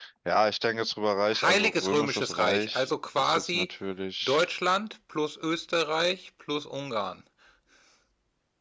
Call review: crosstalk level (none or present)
present